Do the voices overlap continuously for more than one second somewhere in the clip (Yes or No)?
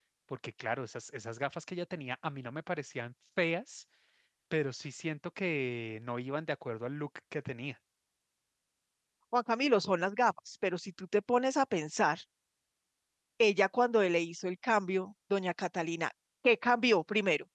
No